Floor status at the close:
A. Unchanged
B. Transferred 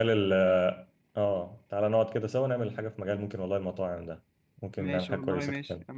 B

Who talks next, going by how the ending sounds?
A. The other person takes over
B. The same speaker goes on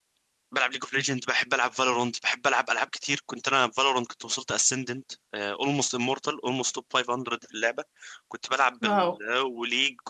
B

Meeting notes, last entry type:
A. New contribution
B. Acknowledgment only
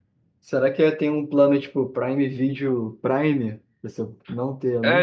A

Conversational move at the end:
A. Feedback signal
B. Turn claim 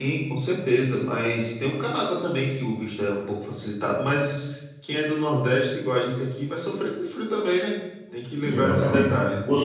B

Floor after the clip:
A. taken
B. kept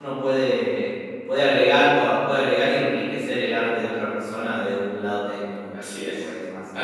A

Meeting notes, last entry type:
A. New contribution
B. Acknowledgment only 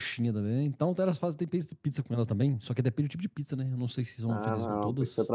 A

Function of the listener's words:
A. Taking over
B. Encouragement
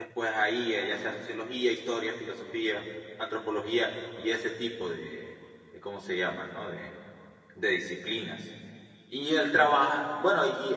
B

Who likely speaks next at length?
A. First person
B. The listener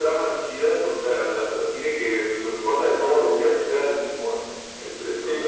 A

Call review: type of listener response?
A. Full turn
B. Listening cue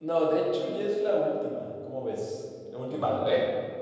A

